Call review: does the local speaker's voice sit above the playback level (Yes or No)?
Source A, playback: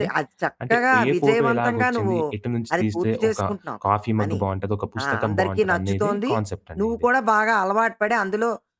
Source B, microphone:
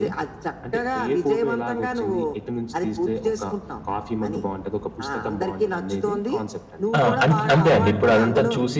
Yes